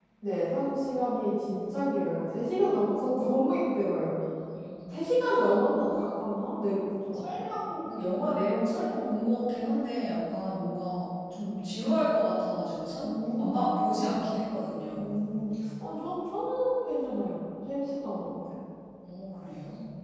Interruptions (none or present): present